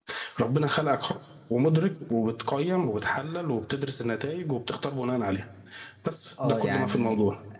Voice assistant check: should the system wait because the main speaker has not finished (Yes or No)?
No